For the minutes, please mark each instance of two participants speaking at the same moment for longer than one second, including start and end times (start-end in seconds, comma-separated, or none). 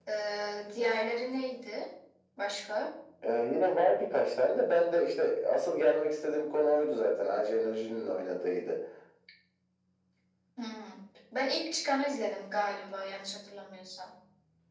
none